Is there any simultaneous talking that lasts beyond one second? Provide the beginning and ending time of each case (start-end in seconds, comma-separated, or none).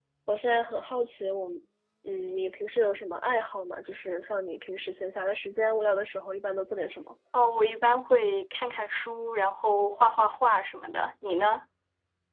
none